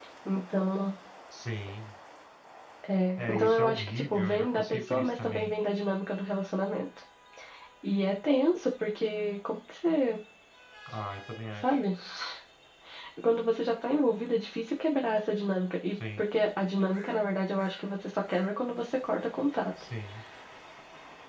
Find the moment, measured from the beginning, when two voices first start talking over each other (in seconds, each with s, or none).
3.2 s